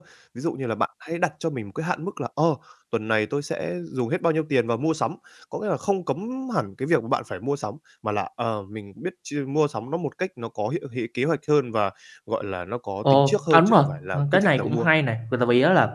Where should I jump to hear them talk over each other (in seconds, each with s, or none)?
13.0 s